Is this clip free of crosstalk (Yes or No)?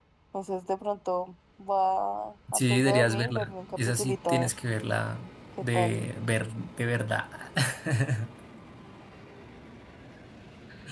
No